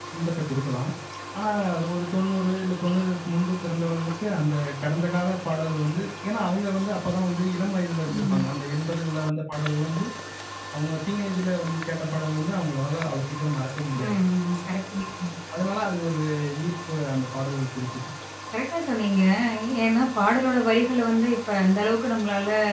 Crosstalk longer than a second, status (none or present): none